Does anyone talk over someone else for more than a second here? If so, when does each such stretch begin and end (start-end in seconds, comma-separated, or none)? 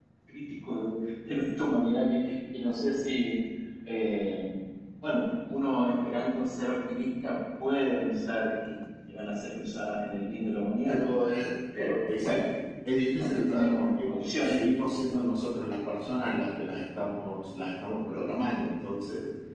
13.2-14.6